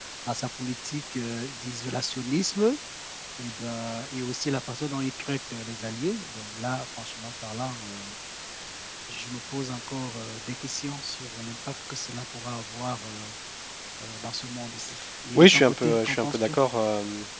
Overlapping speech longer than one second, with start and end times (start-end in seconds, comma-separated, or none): 15.4-16.6